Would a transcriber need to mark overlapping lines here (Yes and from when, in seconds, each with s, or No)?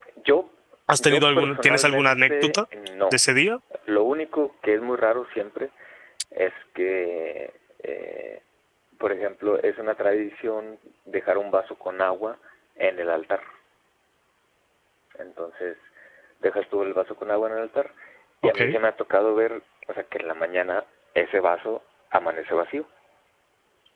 Yes, from 1.0 s